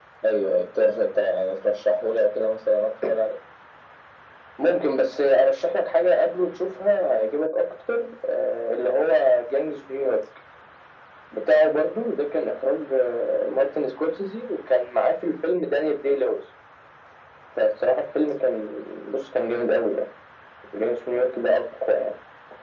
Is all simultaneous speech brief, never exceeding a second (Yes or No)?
Yes